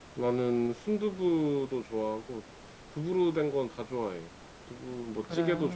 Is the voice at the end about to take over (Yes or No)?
No